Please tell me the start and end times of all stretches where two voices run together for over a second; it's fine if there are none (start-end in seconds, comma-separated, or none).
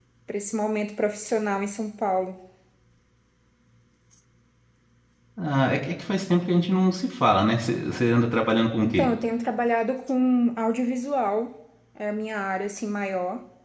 none